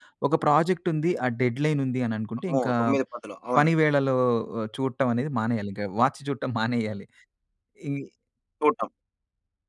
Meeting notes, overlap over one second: none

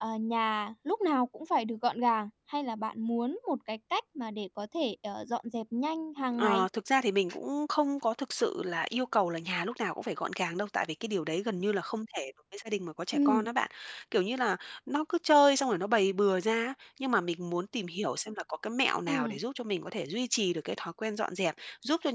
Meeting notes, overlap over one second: none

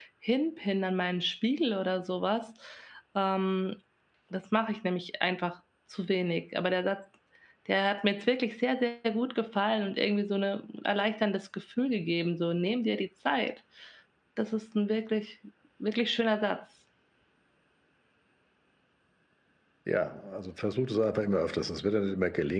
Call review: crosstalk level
none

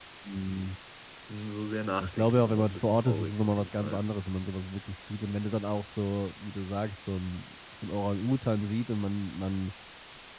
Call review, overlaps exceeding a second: present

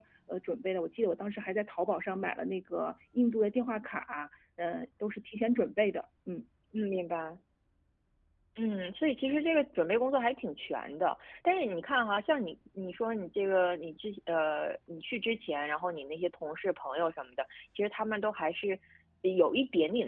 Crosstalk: none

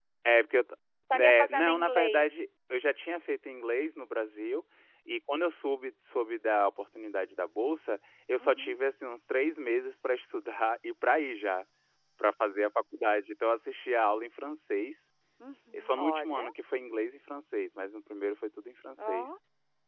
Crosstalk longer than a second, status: present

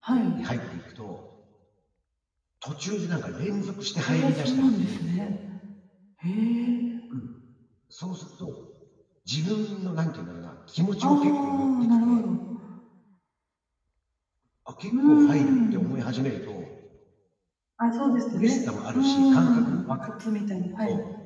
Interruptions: present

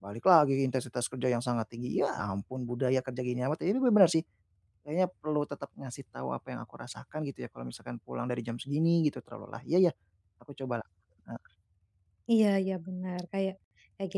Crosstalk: none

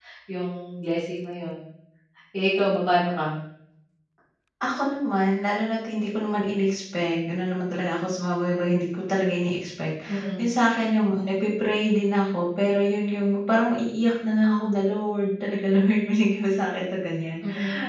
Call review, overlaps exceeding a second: none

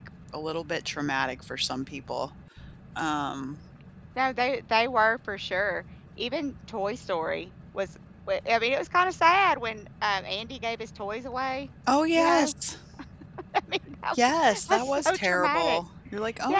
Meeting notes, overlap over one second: present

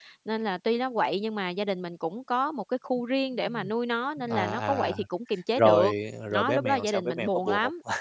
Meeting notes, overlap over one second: present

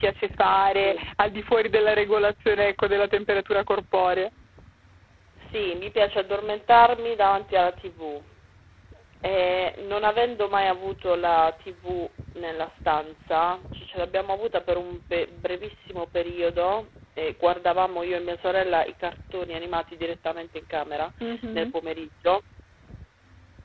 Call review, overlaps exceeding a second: none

